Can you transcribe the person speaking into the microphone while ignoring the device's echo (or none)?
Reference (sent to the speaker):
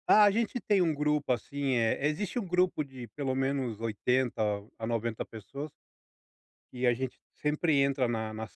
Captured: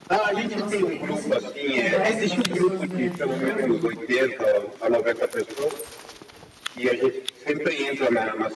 Porque você tem, você conversa com as pessoas durante o jogo?